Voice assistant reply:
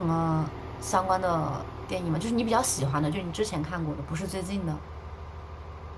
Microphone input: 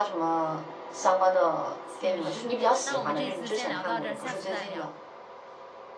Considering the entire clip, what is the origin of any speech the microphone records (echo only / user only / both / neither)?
both